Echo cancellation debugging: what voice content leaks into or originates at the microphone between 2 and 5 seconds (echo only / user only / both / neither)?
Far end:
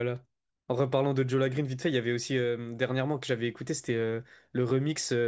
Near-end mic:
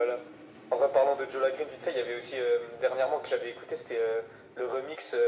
echo only